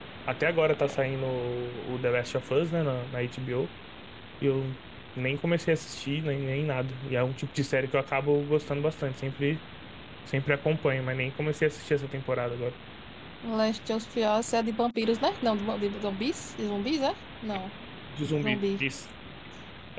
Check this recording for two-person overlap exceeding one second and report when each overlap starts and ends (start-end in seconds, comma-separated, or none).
none